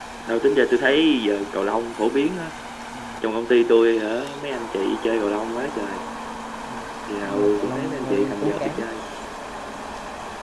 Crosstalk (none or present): present